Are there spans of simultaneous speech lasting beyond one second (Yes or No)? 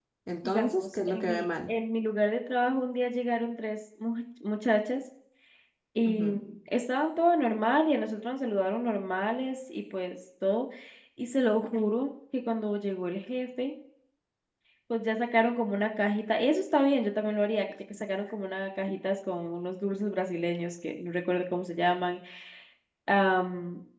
Yes